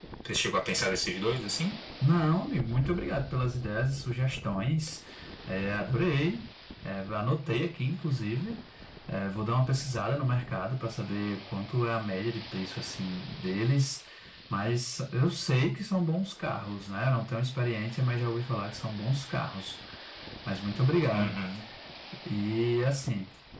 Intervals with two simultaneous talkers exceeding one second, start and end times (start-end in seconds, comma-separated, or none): none